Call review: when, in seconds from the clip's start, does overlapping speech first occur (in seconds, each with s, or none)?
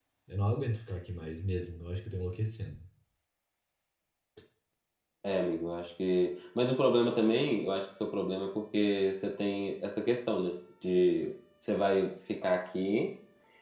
none